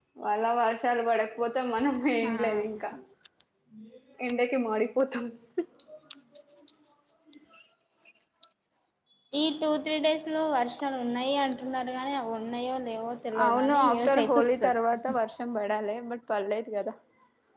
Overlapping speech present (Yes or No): Yes